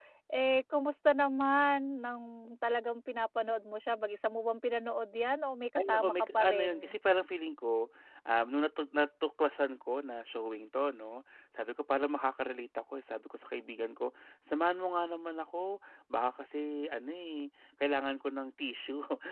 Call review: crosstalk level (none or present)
present